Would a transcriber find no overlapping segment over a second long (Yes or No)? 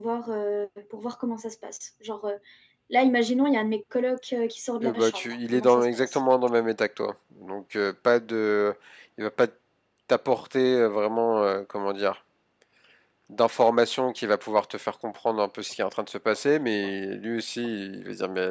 No